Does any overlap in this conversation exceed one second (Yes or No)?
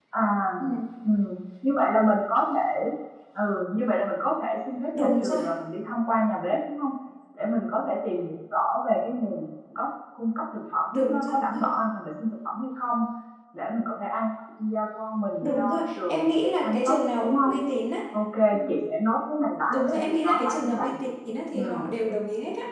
Yes